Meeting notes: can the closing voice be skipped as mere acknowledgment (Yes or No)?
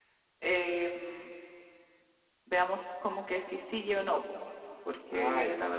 Yes